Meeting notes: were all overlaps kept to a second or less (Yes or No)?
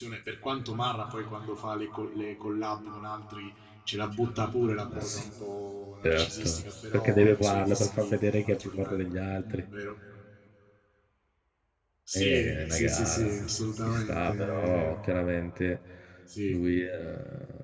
No